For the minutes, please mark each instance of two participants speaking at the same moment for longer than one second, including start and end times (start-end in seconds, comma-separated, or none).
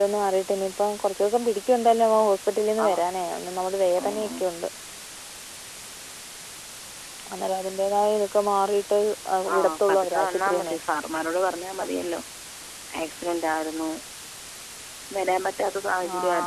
9.6-10.8